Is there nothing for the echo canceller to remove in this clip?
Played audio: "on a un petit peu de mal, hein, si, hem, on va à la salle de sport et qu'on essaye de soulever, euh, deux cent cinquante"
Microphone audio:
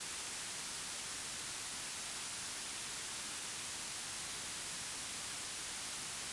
Yes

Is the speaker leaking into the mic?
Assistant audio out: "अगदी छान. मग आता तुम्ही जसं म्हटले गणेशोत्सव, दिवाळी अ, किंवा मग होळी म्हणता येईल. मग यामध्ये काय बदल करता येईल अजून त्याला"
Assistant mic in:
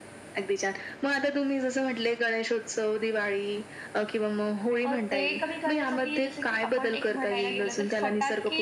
Yes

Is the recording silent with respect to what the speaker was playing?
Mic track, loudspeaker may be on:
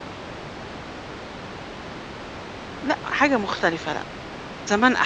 Yes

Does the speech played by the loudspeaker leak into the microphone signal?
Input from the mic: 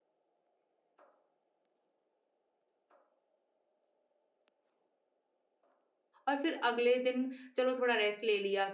No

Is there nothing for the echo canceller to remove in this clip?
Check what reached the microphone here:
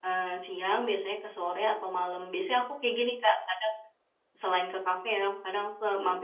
Yes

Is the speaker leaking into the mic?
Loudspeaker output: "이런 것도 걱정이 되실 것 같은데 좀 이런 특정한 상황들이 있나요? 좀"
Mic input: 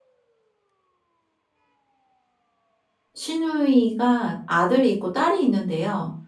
No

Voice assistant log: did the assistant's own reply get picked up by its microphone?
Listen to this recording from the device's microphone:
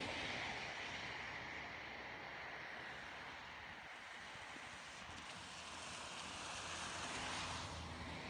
No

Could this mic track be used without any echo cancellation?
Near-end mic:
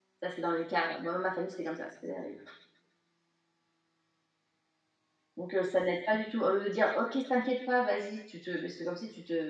Yes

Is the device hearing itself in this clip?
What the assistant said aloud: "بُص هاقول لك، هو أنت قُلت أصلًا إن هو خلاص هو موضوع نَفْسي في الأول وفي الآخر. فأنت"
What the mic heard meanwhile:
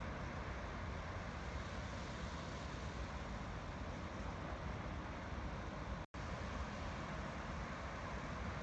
No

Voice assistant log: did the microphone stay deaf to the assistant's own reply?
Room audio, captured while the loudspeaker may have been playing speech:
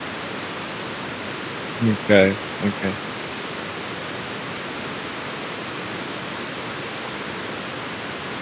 Yes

